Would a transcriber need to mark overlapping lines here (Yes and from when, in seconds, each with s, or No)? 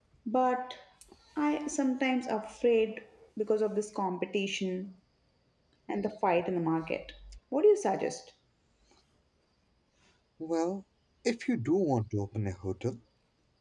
No